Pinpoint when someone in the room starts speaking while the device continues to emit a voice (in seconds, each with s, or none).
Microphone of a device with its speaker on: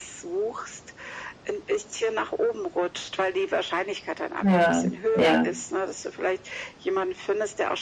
4.4 s